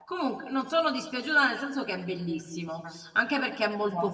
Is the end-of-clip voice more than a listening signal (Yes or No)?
No